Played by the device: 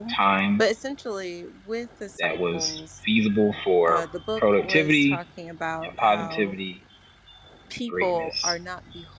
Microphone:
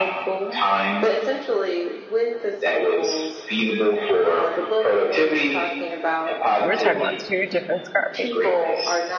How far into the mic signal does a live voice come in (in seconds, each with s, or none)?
6.6 s